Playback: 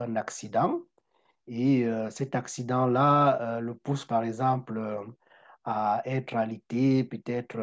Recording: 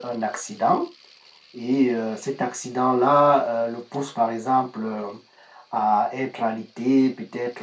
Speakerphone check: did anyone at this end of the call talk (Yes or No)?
No